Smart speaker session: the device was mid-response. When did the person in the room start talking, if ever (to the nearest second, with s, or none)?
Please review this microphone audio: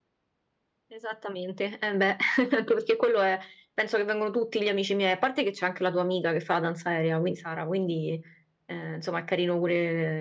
none